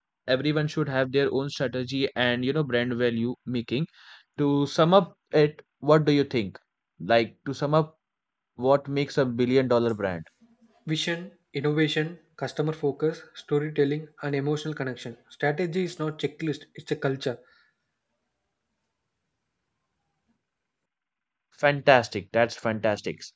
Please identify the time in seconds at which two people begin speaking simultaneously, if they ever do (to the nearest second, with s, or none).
none